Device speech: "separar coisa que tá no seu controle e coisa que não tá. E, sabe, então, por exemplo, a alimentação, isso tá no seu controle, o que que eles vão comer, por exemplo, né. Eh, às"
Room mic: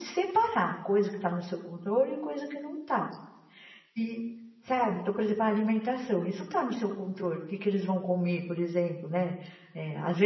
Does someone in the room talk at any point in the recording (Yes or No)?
No